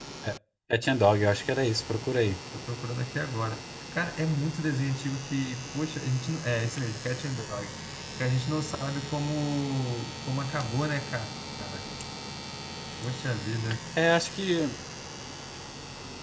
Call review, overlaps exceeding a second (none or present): none